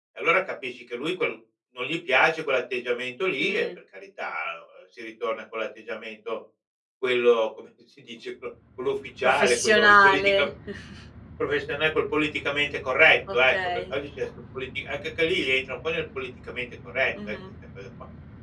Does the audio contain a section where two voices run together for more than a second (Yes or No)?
Yes